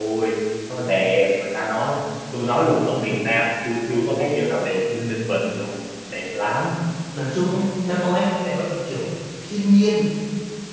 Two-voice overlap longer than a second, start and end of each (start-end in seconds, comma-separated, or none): none